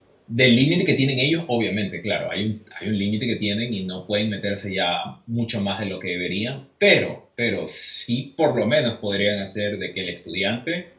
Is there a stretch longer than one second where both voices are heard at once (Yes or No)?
No